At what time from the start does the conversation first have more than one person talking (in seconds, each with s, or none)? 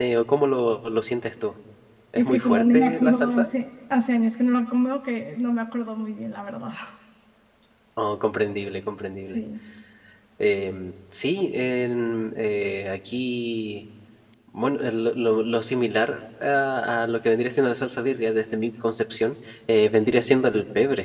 2.2 s